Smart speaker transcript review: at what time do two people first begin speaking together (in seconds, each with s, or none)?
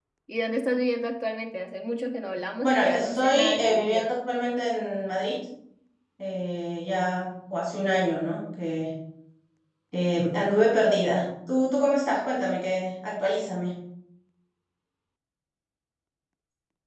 2.6 s